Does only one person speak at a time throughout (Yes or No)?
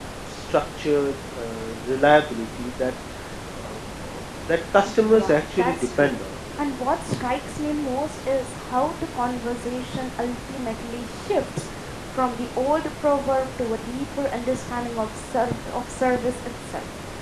No